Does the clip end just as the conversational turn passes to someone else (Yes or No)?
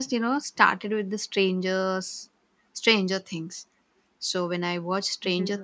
No